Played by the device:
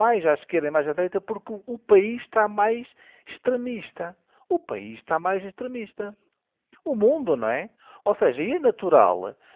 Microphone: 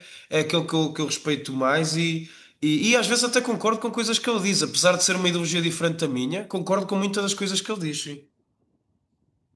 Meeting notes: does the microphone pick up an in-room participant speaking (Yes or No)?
Yes